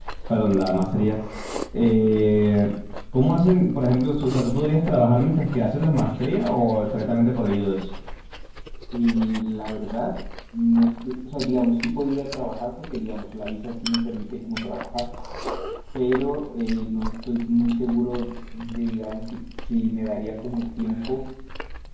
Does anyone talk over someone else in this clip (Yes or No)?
No